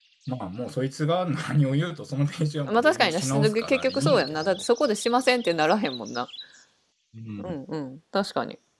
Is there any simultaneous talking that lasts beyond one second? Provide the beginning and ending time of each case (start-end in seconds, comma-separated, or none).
2.7-4.6